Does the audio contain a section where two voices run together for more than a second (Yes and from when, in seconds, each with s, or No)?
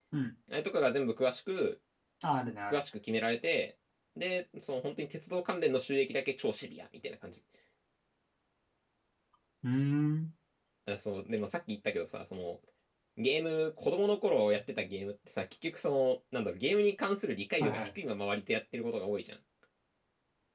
No